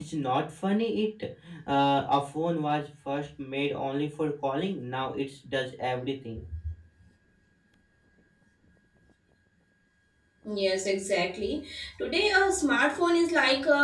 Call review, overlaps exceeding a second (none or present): none